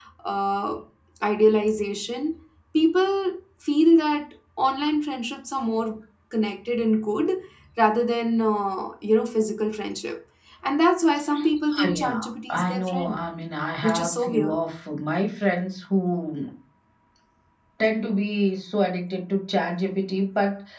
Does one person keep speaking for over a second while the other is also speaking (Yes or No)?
Yes